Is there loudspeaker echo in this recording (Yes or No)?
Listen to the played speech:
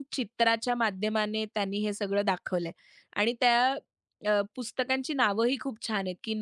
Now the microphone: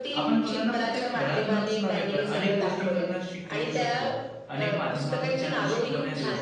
Yes